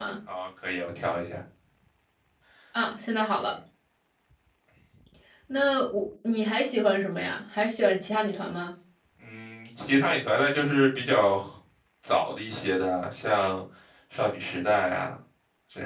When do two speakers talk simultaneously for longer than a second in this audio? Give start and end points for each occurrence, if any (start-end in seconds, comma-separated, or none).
none